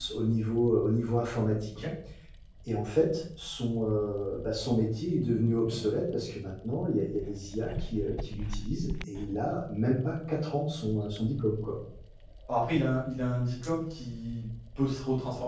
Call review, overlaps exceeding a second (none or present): none